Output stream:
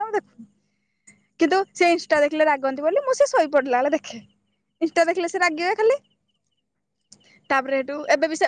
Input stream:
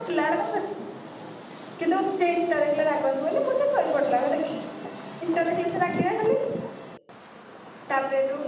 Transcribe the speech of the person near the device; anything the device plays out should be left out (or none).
none